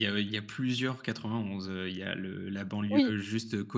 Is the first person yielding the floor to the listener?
No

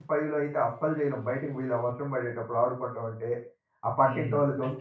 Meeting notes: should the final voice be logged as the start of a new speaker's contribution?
Yes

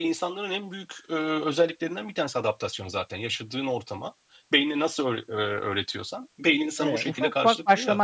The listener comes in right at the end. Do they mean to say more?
Yes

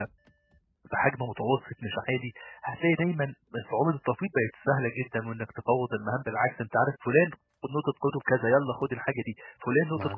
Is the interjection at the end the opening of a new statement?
No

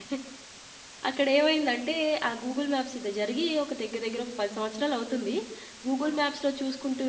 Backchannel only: Yes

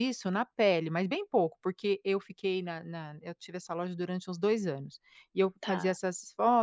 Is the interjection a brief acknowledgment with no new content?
Yes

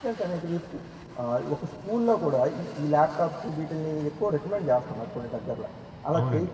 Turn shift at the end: Yes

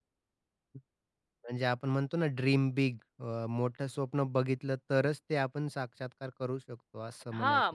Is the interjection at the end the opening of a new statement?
Yes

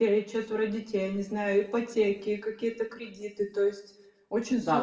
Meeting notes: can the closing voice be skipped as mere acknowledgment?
No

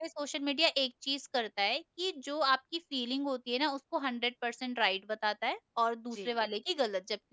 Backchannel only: Yes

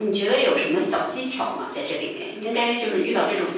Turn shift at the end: No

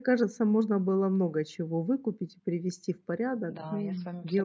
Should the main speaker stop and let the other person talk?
Yes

